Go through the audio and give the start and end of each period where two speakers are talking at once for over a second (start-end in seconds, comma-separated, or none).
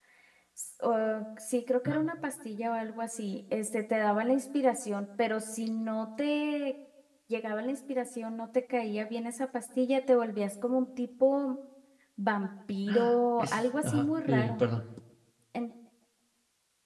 13.4-14.6